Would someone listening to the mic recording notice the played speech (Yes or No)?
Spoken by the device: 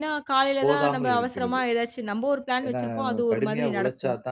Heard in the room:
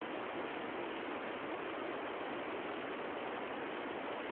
No